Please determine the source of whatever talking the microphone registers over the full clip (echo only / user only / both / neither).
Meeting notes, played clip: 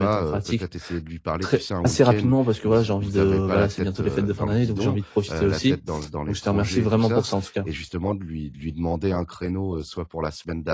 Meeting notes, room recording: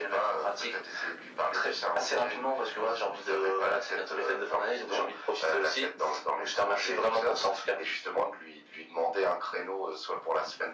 echo only